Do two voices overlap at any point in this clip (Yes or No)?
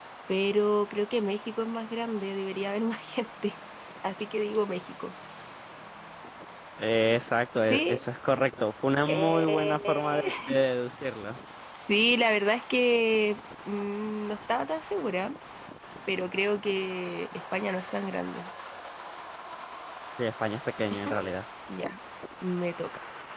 Yes